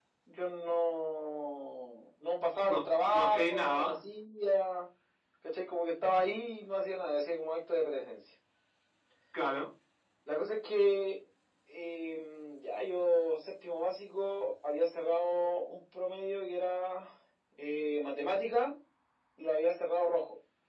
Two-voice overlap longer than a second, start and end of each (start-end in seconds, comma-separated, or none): 2.7-4.0